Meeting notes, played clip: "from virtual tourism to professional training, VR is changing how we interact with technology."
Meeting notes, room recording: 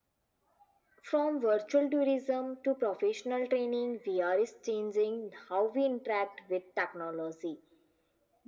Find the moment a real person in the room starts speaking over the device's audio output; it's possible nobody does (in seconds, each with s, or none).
none